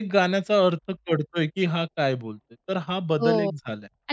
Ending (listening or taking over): taking over